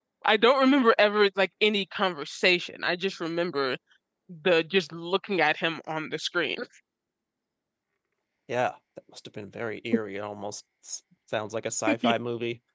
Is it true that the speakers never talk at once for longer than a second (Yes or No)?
Yes